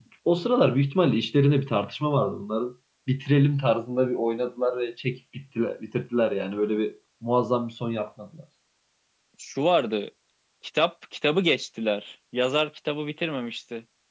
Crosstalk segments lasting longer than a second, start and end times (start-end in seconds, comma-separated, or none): none